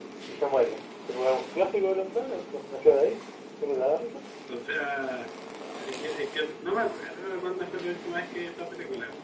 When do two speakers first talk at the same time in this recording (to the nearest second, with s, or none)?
none